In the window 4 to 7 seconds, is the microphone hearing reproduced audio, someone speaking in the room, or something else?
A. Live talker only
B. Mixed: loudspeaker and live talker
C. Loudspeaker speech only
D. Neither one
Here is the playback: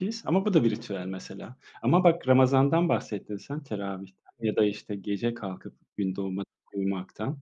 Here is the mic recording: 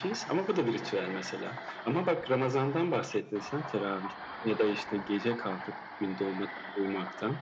C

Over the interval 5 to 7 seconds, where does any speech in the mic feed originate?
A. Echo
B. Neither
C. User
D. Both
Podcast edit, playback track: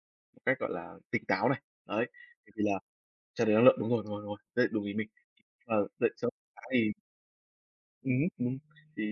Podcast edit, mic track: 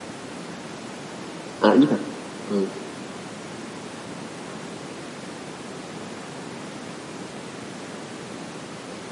B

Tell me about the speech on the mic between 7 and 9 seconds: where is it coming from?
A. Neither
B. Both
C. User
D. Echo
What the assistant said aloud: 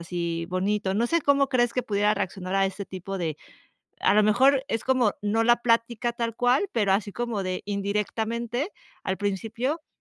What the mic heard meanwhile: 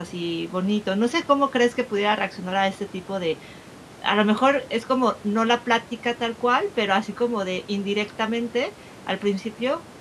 D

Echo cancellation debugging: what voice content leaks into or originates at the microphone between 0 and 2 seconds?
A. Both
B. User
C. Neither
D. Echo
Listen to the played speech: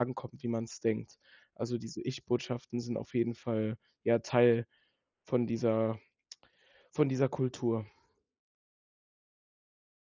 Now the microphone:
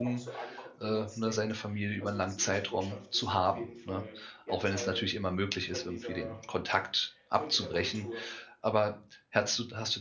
A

